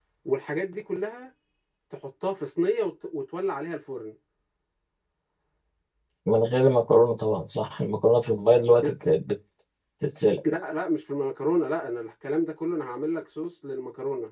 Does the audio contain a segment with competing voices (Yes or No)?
No